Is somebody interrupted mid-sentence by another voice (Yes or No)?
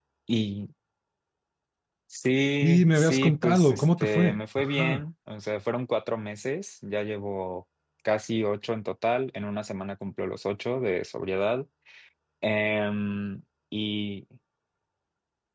Yes